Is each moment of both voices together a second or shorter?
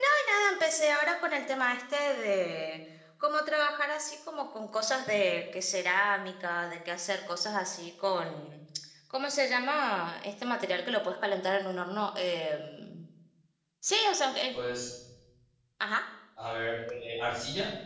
Yes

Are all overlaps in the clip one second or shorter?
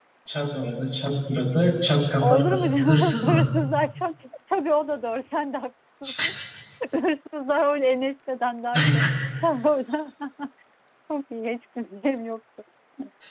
No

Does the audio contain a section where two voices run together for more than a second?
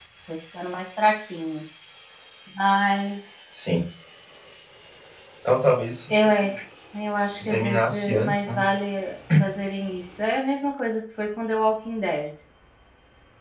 Yes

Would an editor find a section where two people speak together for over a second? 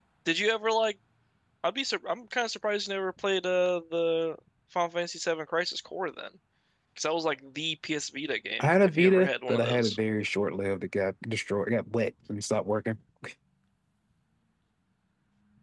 Yes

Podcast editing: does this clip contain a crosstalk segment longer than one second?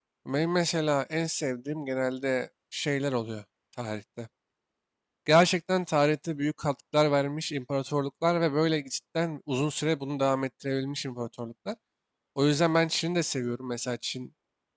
No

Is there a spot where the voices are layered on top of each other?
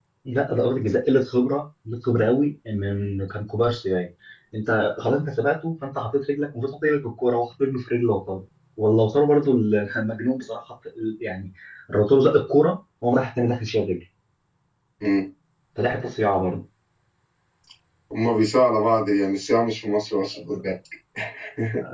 No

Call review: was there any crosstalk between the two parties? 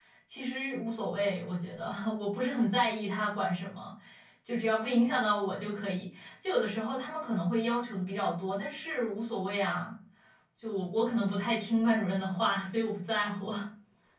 No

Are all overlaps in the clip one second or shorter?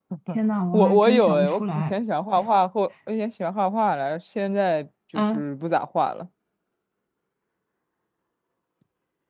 No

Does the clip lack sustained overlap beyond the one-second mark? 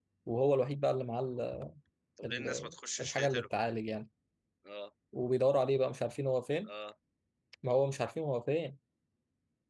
No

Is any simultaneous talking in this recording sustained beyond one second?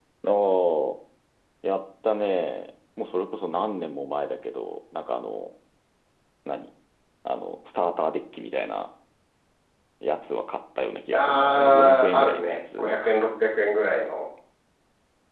Yes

